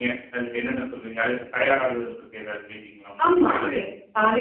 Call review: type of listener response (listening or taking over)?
taking over